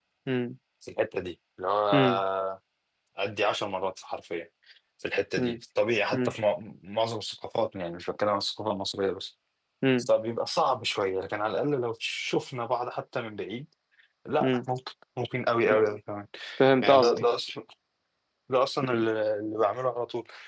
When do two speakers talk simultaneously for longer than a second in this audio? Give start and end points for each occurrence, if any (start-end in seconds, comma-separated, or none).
none